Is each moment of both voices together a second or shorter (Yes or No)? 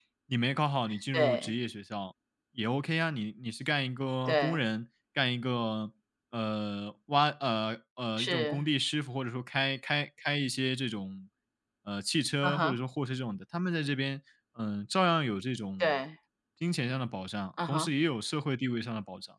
Yes